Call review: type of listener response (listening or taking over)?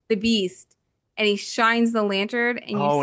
taking over